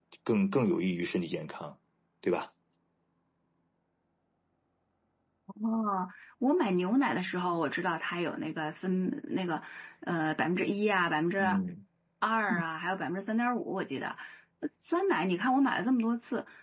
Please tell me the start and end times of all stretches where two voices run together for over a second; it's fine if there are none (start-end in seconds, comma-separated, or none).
none